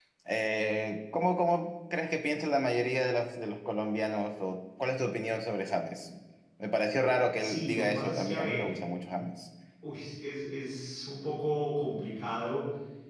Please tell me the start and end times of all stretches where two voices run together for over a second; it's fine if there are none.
7.4-8.8

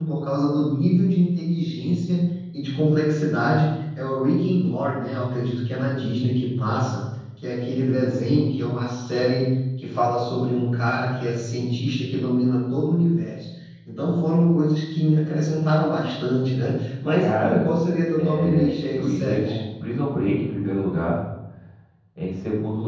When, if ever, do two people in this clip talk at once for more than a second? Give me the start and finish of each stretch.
18.2-19.5

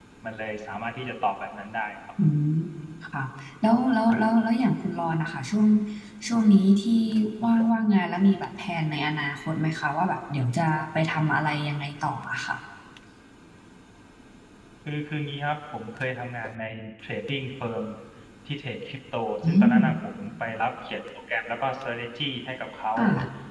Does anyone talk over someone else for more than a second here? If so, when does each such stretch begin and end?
none

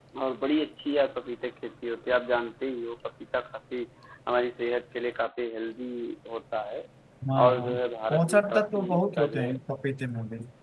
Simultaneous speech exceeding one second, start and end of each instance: 8.1-9.5

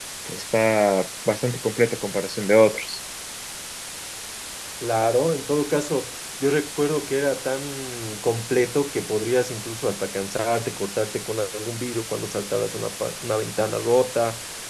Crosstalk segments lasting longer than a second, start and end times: none

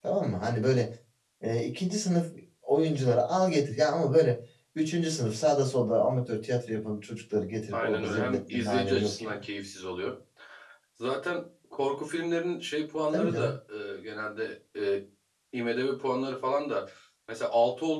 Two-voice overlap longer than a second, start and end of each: 7.7-9.3

